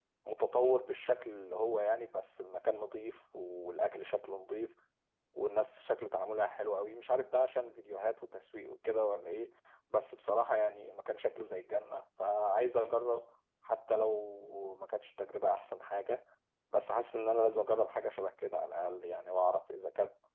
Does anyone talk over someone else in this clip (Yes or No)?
No